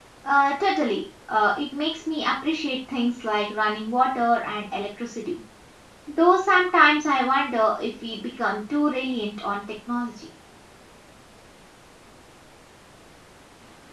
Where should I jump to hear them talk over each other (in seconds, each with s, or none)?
none